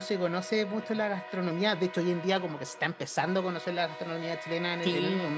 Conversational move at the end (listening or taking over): taking over